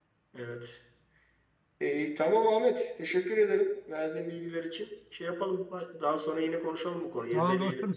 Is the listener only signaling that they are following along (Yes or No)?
No